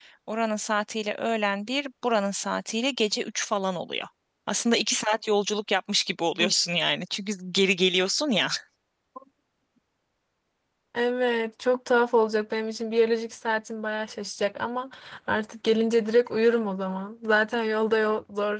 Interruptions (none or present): none